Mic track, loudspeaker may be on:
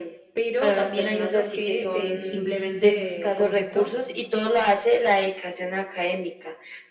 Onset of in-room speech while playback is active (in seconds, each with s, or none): 0.3 s